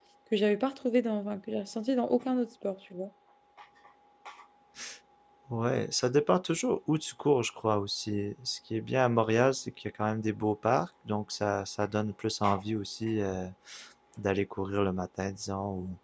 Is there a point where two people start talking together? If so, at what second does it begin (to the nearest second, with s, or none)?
none